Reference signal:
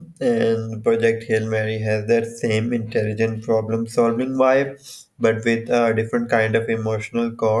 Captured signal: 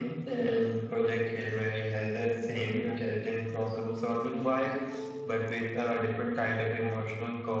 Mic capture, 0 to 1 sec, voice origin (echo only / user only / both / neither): echo only